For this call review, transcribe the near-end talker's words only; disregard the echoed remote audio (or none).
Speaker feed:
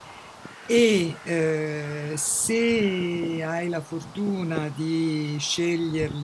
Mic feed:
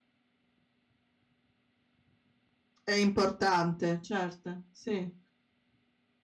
è importante, certo, sì.